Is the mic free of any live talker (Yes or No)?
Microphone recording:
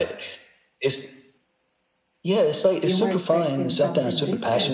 No